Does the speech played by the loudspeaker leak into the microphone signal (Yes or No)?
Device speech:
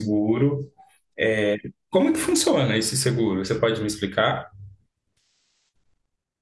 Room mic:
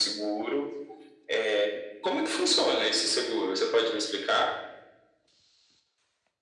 Yes